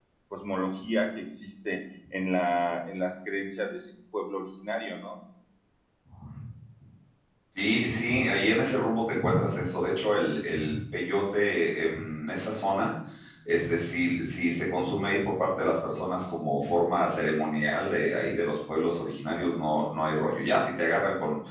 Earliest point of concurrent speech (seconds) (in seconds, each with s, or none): none